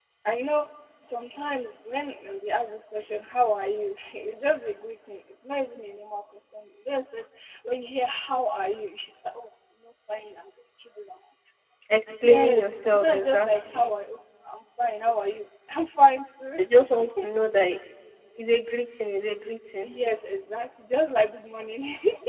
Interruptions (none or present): present